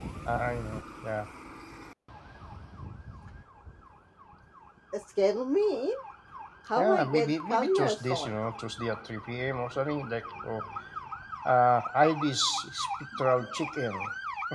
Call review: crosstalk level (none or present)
present